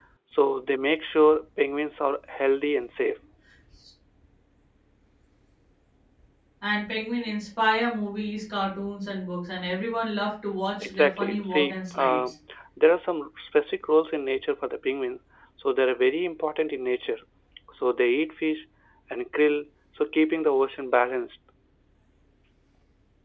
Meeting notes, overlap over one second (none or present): present